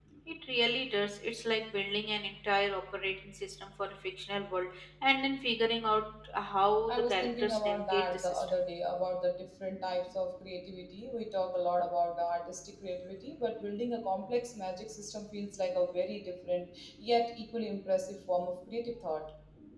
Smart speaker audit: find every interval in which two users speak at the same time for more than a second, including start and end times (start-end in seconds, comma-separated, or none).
6.9-8.6